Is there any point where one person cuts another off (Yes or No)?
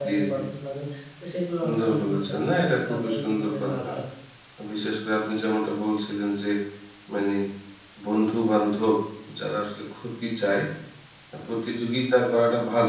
Yes